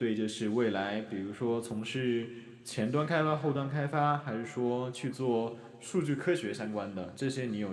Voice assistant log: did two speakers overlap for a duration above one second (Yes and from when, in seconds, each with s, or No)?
No